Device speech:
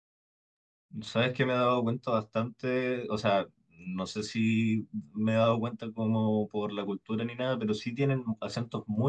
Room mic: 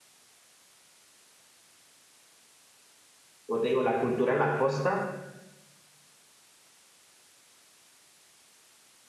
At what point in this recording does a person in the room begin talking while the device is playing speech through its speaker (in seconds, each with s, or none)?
3.5 s